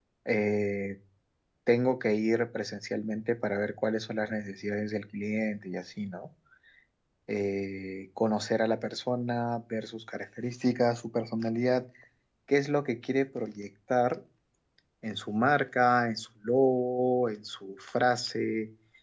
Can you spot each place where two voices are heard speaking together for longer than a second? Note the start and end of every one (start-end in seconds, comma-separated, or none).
none